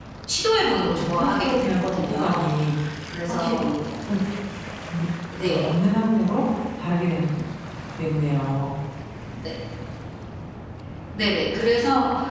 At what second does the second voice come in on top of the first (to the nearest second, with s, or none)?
1 s